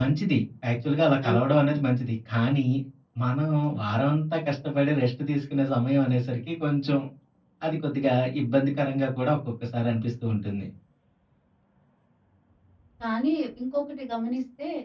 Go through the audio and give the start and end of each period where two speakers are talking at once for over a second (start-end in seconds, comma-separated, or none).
none